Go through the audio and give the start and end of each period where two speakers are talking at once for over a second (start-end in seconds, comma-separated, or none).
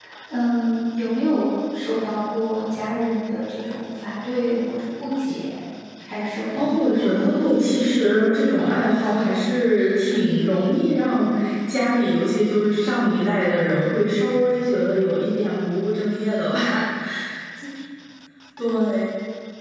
6.5-9.4